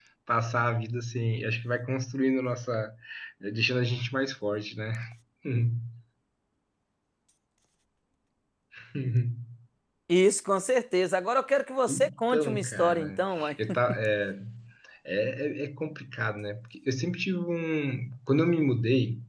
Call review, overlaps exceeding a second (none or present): present